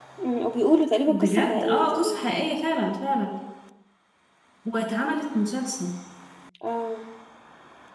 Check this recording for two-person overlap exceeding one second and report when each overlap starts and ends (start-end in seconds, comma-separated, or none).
1.1-2.3